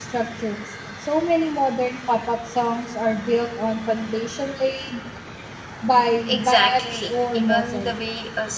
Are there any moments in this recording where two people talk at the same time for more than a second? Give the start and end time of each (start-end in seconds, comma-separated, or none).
6.3-7.9